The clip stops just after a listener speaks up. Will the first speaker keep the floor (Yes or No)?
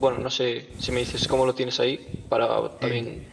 No